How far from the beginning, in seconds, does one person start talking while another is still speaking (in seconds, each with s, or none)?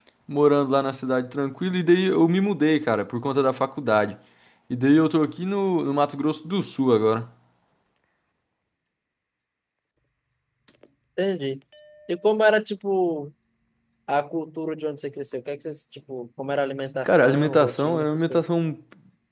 17.0 s